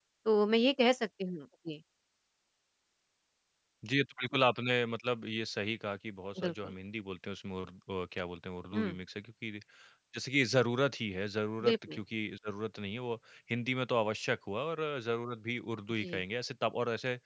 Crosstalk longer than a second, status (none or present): none